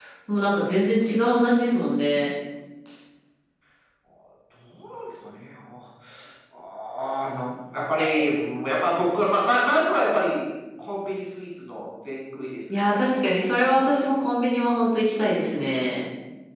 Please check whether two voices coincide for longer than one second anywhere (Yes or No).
No